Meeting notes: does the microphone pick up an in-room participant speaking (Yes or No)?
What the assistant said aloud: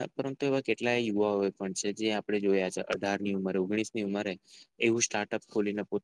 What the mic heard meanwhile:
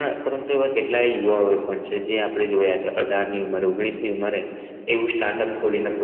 No